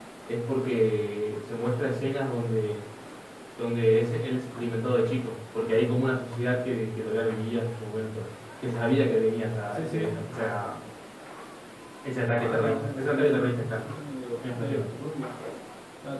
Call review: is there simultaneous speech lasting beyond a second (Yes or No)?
Yes